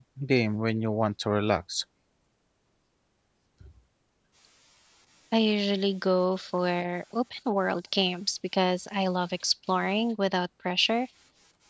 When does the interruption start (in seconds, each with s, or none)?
none